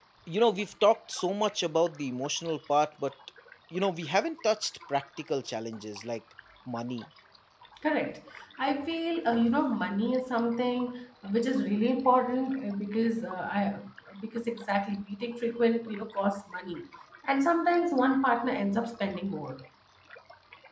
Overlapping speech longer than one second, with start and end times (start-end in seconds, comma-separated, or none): none